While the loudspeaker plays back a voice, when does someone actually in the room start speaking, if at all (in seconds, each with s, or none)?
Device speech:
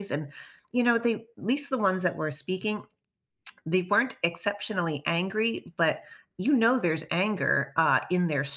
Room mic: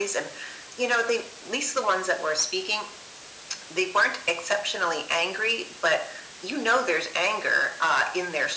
none